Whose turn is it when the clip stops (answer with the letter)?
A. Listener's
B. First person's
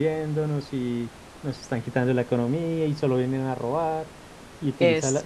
B